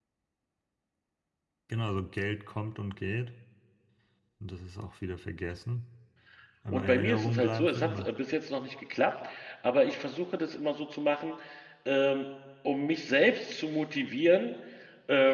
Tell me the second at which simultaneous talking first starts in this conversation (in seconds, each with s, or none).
6.7 s